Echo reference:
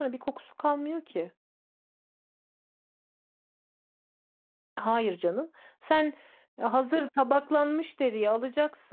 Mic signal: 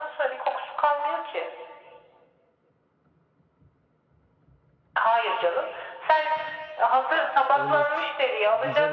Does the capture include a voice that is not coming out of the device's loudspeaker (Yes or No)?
Yes